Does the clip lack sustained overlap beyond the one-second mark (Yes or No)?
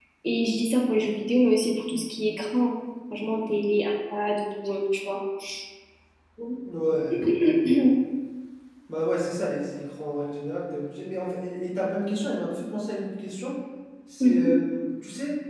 Yes